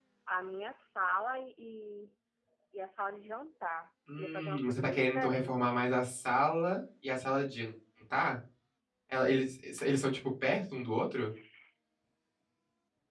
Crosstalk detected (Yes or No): Yes